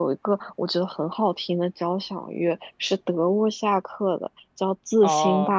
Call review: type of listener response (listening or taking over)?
listening